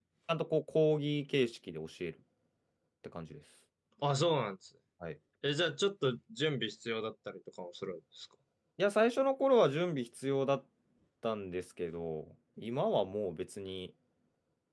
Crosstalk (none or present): none